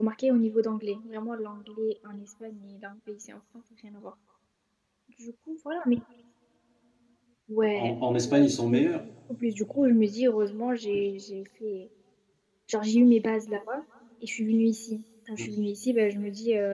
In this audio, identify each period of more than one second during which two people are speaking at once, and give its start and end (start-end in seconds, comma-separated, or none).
7.8-9.0